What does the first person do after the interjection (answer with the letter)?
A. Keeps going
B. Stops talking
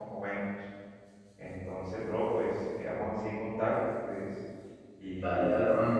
B